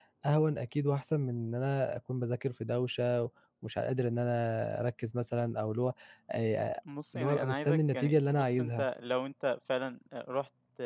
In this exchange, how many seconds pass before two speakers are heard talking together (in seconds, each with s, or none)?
7.1 s